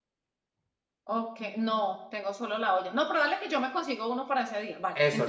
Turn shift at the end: Yes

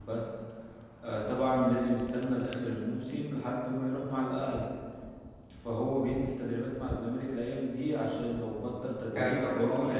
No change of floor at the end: No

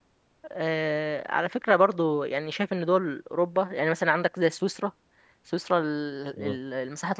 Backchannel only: Yes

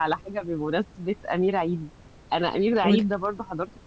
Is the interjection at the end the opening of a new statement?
No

